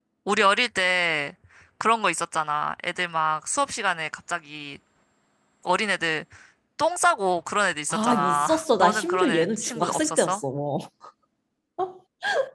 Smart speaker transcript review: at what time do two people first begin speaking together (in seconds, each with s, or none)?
7.9 s